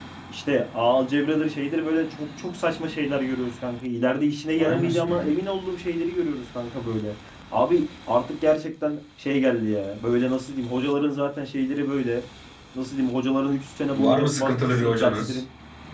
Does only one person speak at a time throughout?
No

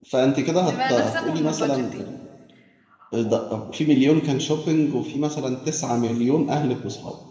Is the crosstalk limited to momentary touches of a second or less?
No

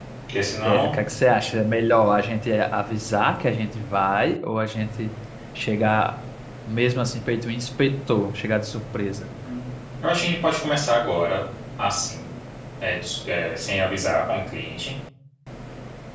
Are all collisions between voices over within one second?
Yes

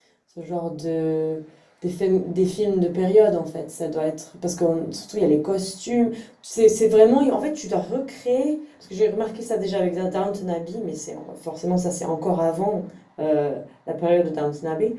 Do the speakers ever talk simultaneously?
No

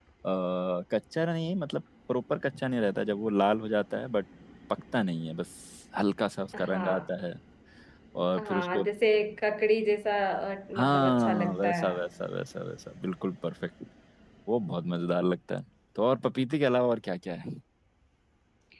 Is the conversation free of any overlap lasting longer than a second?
No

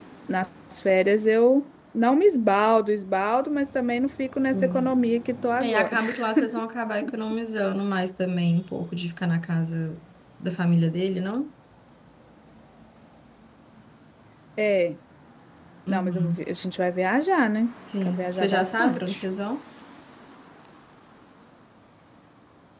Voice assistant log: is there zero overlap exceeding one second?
No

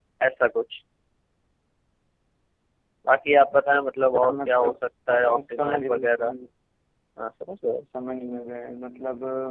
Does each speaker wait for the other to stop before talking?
No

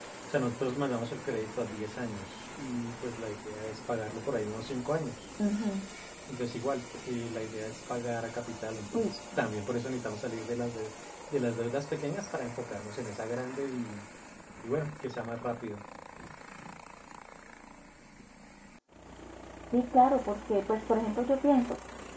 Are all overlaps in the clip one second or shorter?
Yes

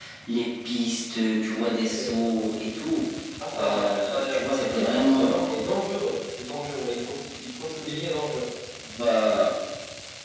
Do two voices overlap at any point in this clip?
Yes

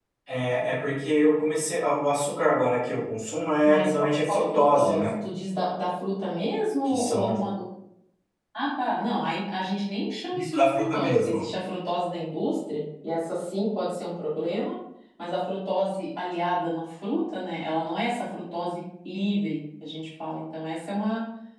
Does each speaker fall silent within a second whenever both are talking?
No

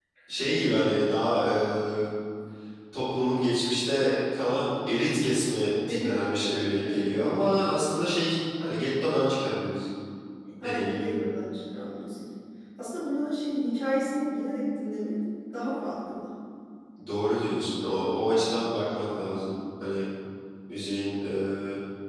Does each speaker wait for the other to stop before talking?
No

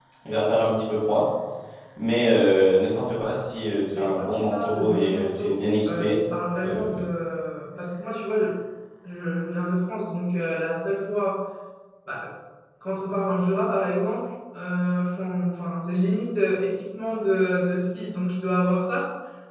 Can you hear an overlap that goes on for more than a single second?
Yes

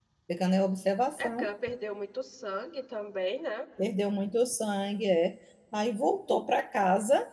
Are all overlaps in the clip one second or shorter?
Yes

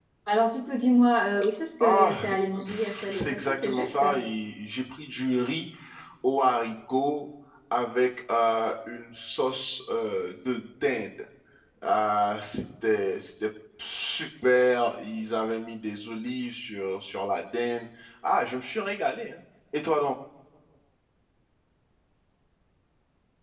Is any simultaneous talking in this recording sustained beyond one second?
Yes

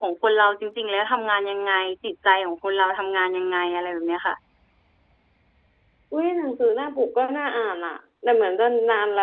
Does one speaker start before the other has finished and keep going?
No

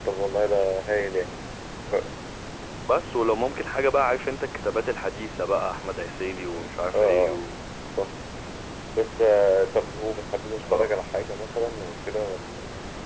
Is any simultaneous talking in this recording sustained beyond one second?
No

